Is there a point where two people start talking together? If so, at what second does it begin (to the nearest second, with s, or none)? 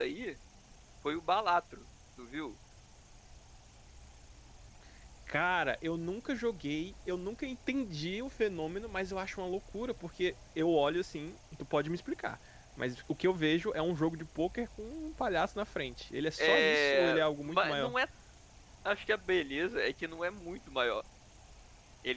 16 s